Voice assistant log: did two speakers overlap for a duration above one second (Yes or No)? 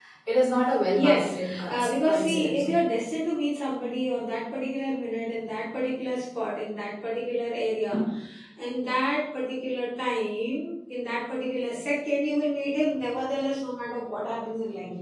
Yes